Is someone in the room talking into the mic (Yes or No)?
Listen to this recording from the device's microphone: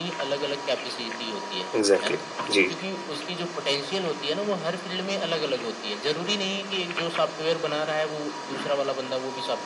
Yes